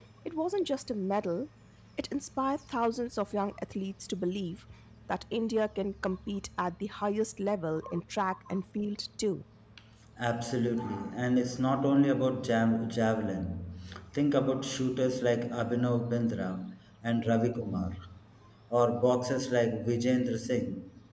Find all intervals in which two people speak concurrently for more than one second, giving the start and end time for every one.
none

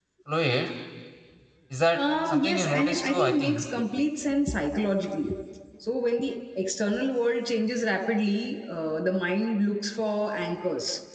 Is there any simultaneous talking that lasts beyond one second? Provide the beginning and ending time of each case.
1.9-3.6

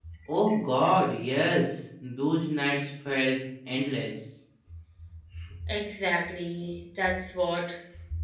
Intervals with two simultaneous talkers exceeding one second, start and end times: none

